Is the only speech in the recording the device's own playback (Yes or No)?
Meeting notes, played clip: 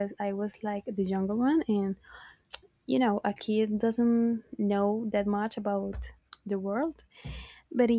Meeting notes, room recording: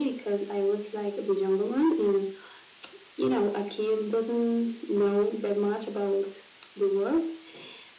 Yes